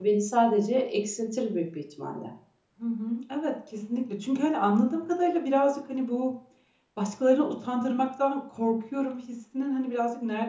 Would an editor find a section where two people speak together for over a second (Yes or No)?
No